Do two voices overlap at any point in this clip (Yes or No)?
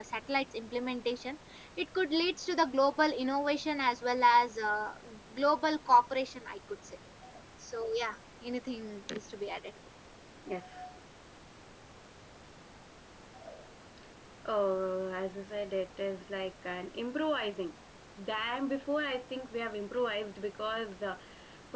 No